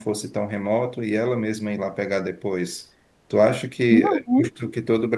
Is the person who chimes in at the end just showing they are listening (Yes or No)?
Yes